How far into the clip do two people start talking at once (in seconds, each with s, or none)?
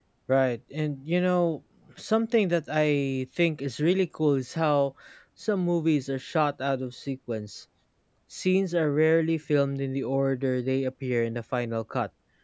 none